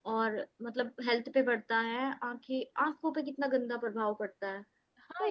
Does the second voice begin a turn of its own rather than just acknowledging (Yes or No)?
Yes